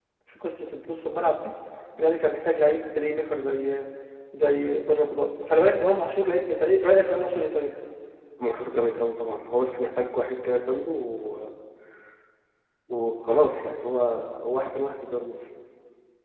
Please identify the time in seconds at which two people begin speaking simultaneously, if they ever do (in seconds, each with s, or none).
none